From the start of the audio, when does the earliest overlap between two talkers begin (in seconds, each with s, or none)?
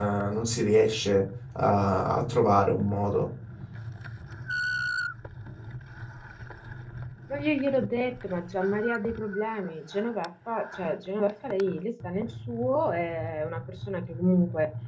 none